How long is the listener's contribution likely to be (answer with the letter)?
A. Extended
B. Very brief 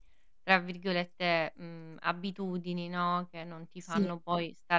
B